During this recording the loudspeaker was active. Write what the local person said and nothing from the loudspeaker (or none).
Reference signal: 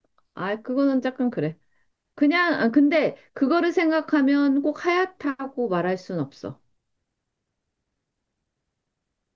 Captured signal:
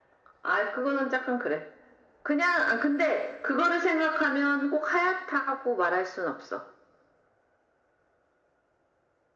none